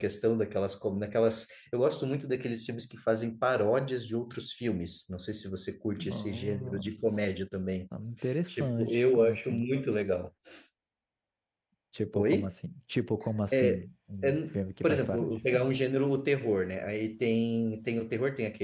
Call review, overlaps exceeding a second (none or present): present